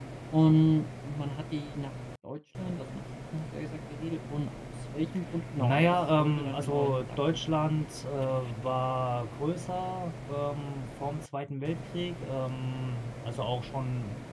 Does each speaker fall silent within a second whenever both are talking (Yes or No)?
No